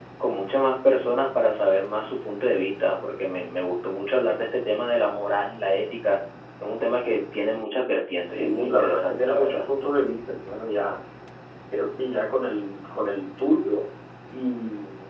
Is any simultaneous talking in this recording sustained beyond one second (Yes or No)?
Yes